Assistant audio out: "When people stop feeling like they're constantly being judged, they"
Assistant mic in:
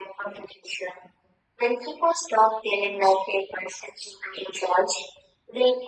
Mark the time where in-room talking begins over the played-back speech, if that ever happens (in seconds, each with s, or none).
none